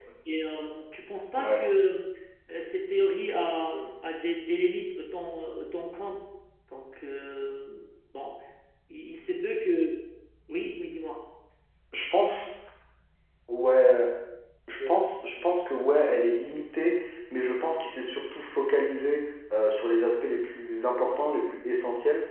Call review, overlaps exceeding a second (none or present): none